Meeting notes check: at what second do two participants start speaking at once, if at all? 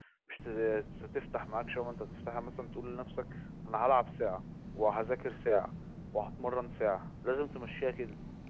none

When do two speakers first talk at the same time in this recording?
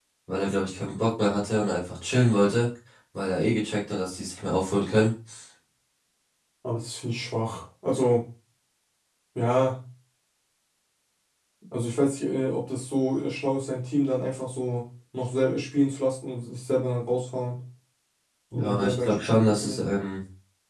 19 s

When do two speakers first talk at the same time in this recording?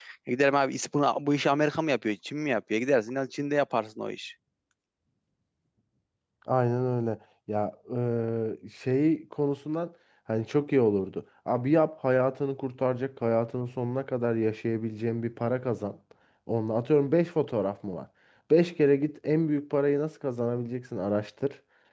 none

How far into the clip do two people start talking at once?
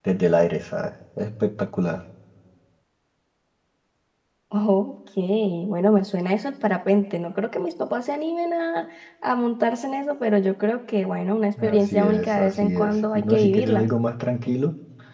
12 s

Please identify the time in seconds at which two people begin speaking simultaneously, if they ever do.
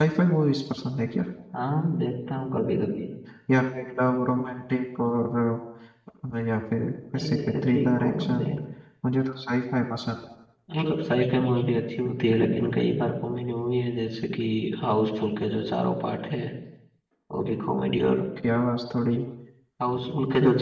7 s

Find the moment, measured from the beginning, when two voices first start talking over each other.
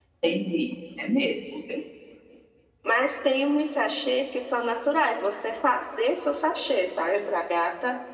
none

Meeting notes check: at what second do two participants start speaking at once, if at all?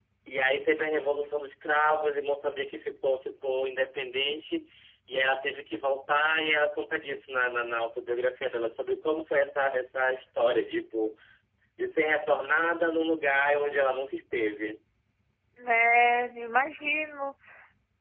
none

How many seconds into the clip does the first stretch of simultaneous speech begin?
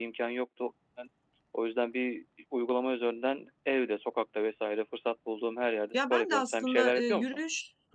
6 s

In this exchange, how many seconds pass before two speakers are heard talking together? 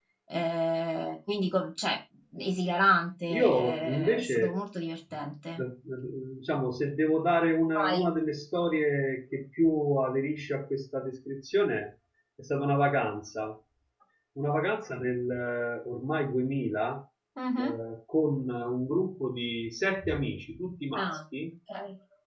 3 s

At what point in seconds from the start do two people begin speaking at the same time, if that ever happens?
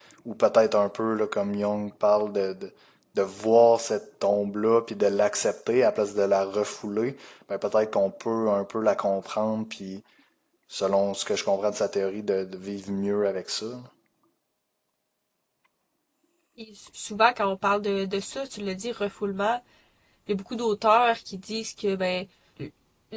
none

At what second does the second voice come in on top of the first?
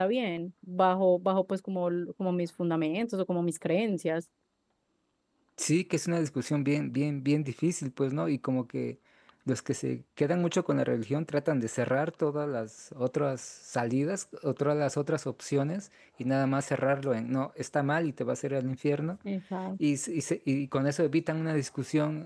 none

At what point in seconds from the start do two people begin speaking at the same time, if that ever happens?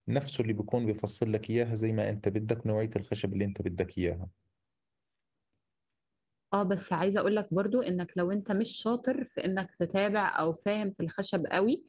none

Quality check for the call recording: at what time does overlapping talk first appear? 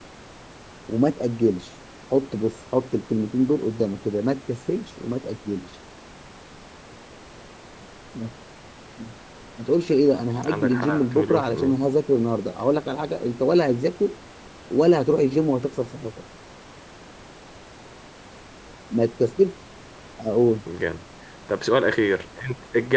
10 s

